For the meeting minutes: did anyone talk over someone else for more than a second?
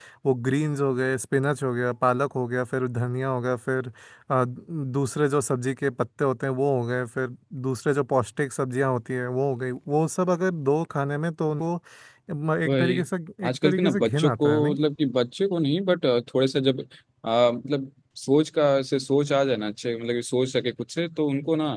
Yes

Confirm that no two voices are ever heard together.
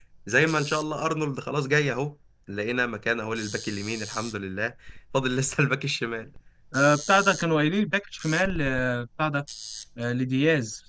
Yes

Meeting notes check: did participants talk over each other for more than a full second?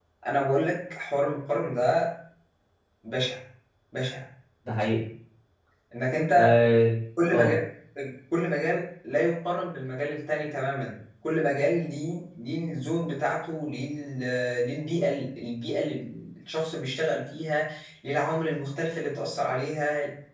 No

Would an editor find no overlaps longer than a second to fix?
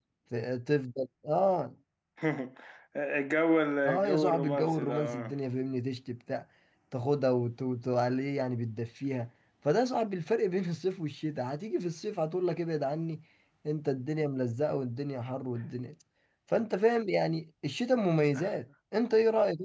No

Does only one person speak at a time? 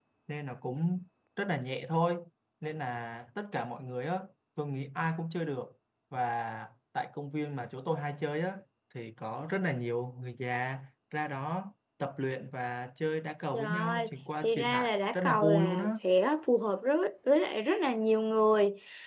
No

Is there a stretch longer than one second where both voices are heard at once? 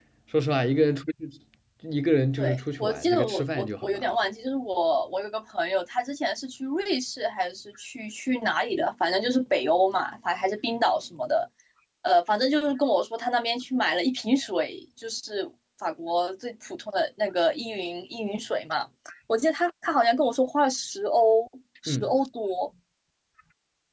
Yes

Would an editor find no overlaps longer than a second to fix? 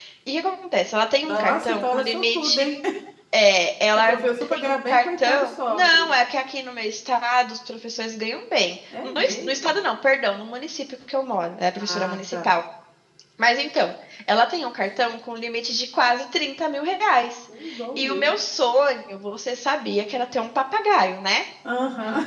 No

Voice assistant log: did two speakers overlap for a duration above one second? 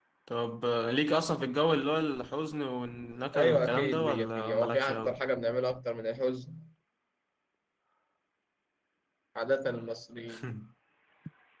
Yes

